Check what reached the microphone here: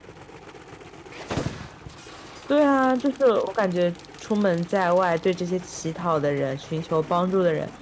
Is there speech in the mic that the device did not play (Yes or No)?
Yes